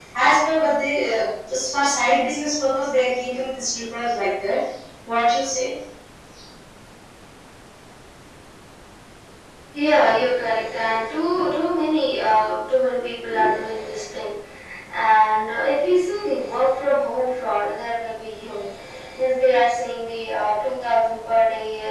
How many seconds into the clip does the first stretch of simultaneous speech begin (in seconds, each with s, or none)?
none